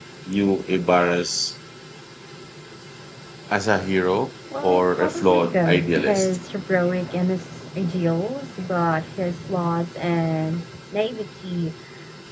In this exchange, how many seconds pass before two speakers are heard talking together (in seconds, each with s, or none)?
4.5 s